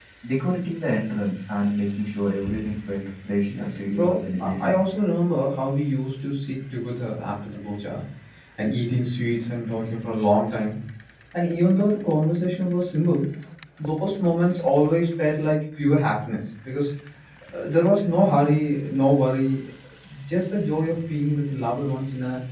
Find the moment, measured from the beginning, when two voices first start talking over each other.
3.5 s

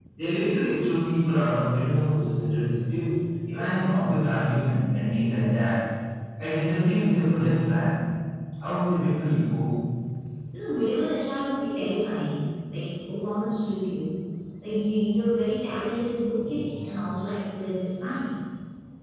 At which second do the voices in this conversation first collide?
none

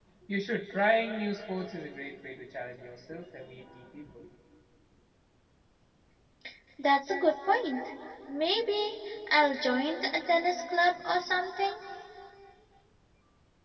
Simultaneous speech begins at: none

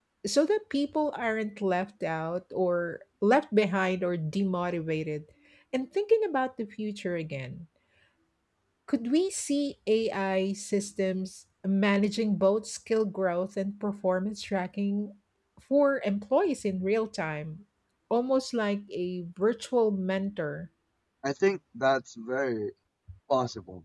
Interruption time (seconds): none

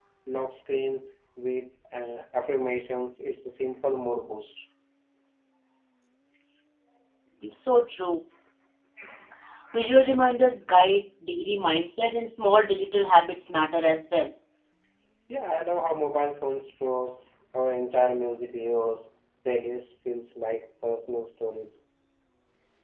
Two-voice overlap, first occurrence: none

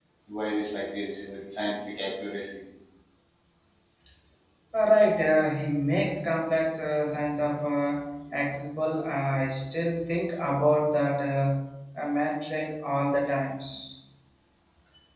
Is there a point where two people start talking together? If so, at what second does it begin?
none

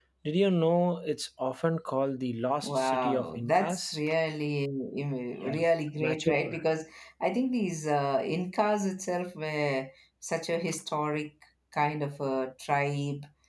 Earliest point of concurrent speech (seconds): 2.6 s

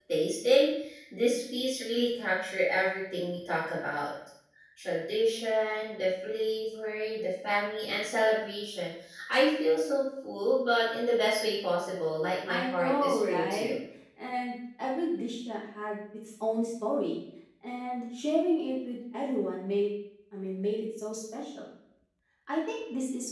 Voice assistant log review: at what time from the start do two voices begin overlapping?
12.5 s

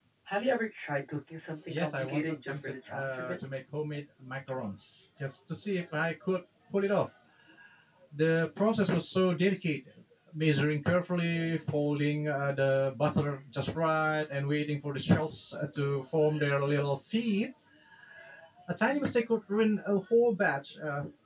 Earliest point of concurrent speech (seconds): 1.7 s

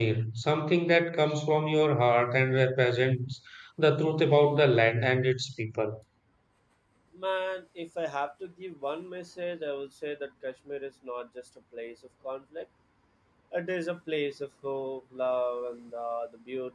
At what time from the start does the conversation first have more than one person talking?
none

